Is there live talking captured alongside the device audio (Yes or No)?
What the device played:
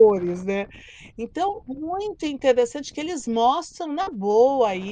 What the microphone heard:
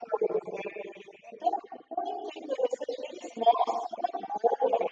No